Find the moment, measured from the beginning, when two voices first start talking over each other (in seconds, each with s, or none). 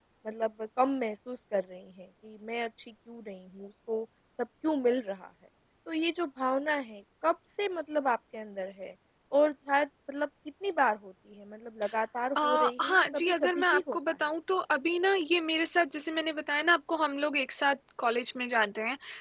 12.4 s